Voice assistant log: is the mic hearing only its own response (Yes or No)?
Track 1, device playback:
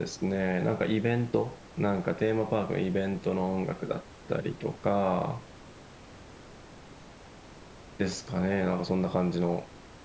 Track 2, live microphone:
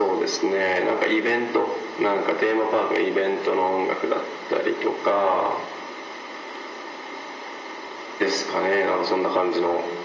Yes